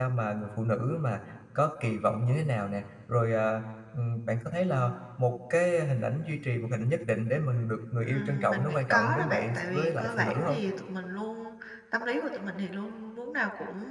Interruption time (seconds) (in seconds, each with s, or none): 8.0 s